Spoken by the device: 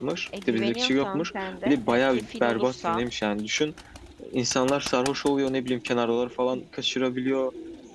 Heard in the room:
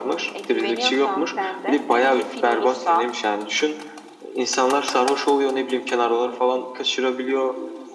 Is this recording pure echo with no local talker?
Yes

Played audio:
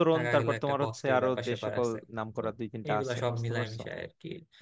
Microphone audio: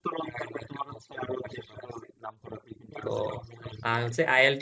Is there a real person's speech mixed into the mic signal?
Yes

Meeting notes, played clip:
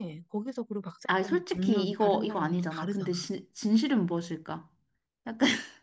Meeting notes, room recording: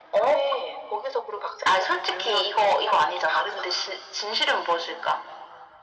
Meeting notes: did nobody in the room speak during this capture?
Yes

